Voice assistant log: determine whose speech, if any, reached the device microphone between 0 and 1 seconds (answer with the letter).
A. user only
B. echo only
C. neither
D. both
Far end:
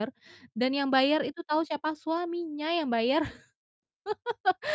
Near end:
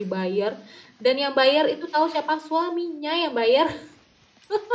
B